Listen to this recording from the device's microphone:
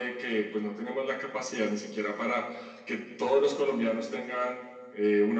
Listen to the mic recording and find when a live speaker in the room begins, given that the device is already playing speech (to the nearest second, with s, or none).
none